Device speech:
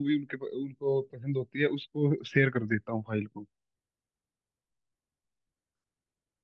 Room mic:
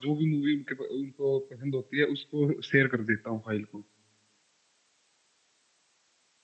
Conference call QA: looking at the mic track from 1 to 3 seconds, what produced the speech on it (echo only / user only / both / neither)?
echo only